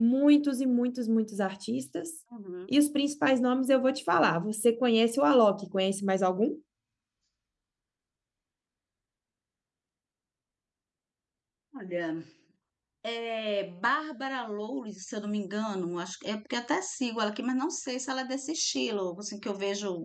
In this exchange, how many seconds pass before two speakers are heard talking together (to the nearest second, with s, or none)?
none